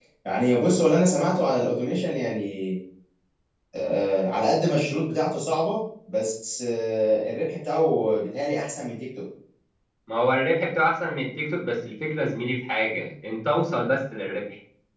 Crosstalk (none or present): none